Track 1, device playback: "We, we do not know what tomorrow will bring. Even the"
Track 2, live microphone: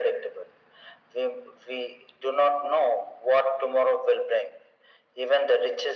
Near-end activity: none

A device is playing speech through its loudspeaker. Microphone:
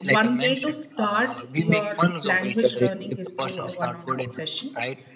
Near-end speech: present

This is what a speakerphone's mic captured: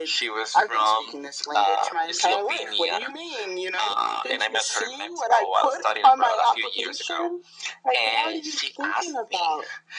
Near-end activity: none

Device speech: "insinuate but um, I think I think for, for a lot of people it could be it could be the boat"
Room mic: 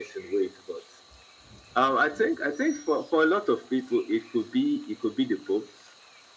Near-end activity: none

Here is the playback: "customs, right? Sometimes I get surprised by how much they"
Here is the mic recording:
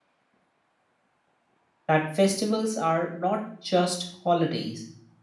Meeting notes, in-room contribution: present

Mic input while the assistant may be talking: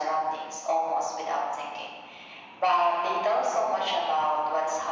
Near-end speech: none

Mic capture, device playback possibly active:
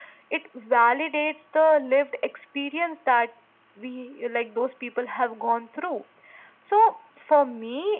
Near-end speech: none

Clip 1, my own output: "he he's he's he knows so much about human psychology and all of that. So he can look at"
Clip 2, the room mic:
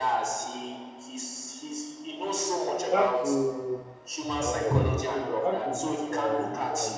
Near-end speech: present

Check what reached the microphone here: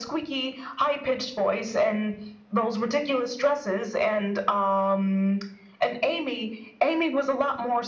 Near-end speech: none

